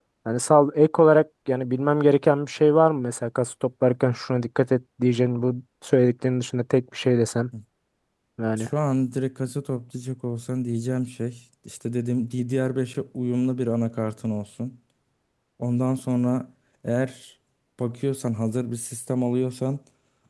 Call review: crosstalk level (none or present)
none